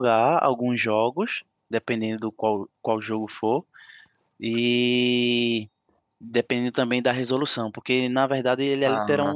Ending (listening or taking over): listening